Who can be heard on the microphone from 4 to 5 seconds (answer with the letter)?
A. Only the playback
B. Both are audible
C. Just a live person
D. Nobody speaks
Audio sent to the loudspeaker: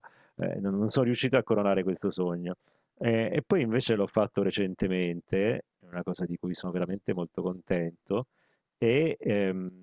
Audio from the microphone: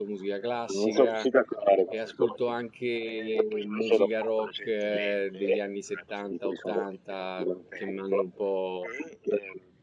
B